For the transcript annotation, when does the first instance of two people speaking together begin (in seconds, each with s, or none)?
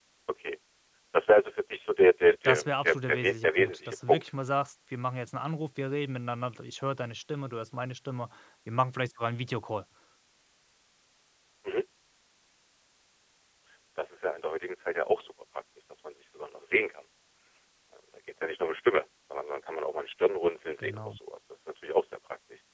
2.4 s